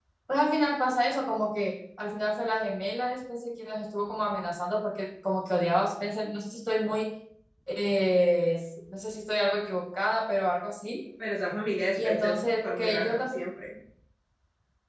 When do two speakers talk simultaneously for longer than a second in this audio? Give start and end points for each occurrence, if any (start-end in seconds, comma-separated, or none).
11.9-13.4